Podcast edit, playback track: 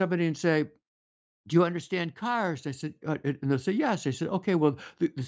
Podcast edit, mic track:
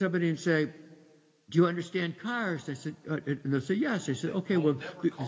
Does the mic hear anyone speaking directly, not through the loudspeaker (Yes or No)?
Yes